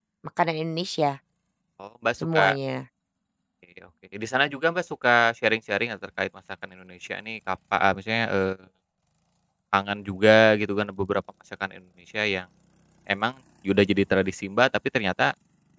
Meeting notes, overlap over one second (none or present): none